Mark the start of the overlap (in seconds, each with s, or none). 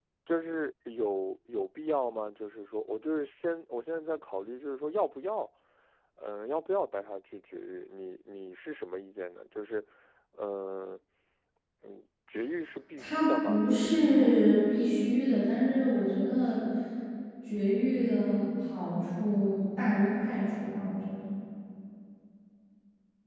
13.0 s